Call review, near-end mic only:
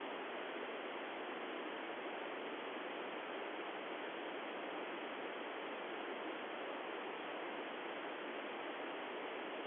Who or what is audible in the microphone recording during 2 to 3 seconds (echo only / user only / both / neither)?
neither